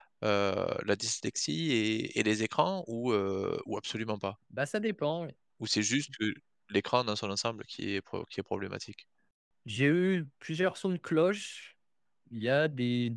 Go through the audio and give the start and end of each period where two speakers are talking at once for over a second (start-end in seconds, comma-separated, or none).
none